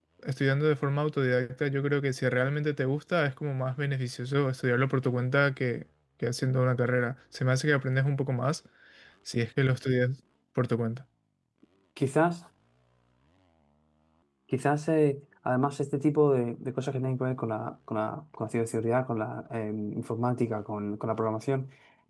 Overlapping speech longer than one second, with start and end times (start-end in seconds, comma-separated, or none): none